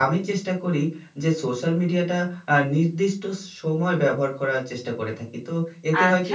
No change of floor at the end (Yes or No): No